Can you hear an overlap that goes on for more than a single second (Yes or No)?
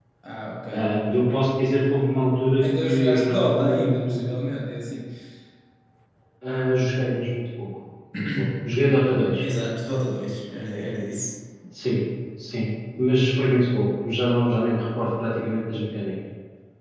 Yes